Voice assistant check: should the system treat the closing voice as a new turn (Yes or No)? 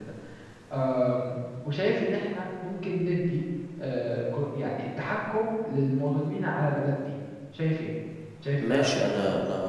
Yes